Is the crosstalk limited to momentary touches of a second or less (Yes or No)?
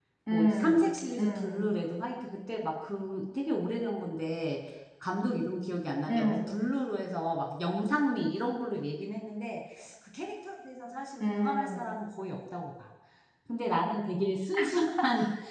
No